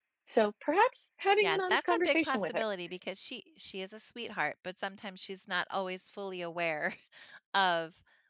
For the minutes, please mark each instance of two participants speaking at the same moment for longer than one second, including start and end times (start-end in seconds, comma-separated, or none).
1.4-2.6